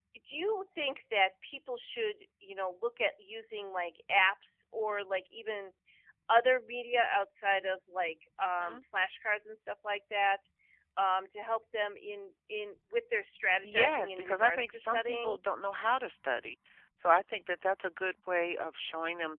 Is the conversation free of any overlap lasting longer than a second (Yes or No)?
No